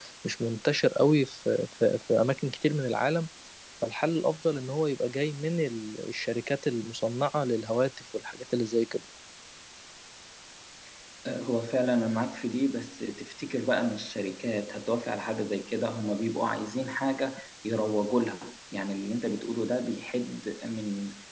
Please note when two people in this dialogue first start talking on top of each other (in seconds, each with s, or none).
none